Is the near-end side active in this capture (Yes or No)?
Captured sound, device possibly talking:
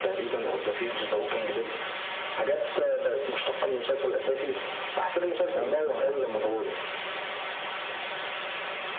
Yes